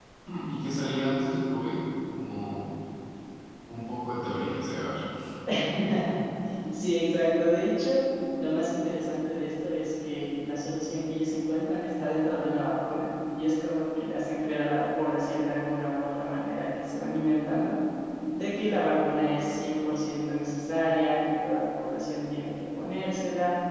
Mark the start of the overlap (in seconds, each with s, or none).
none